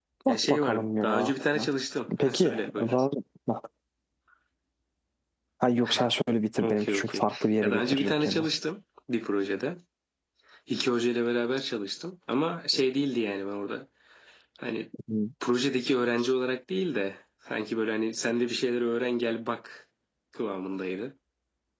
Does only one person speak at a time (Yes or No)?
No